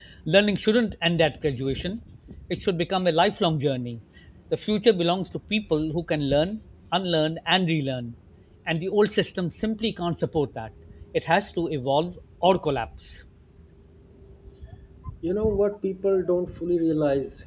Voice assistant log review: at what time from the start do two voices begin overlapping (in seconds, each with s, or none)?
none